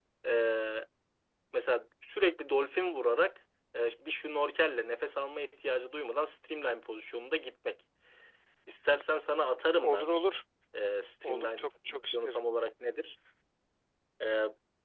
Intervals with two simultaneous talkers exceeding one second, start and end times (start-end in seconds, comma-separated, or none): 11.2-12.4